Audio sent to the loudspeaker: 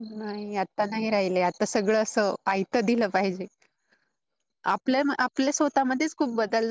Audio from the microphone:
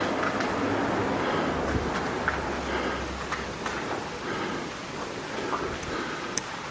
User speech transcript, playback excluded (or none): none